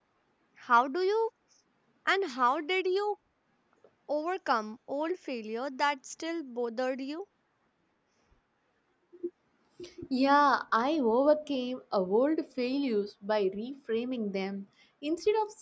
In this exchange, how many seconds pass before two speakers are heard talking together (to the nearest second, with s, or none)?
none